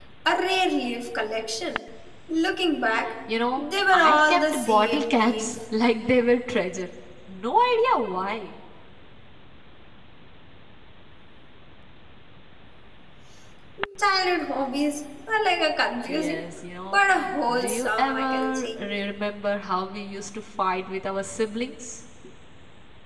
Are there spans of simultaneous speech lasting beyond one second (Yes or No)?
Yes